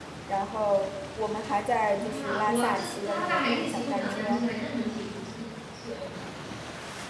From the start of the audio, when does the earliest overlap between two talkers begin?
1.8 s

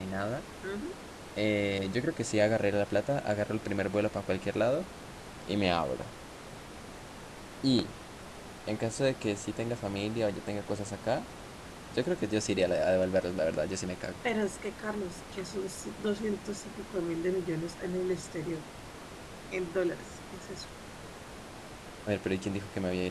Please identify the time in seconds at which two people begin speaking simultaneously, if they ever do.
none

